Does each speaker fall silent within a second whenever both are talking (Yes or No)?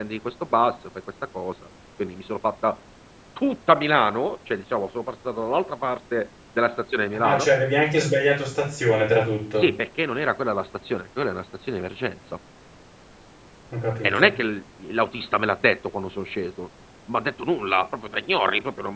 Yes